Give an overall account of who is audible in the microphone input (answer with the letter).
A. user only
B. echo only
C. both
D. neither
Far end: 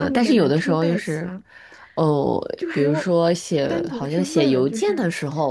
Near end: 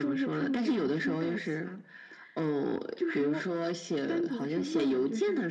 B